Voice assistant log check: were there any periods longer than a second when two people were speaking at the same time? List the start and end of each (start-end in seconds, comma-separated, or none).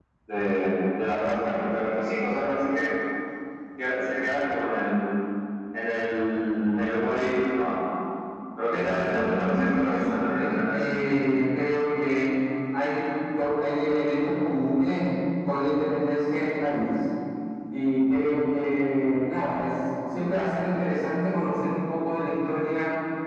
8.7-10.8